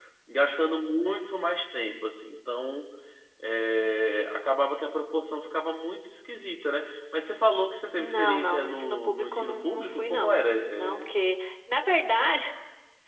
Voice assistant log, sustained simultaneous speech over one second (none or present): present